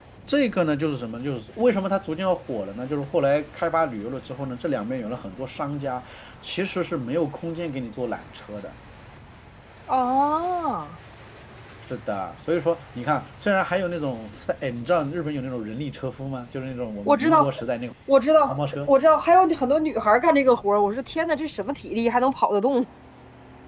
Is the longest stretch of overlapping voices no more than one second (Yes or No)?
Yes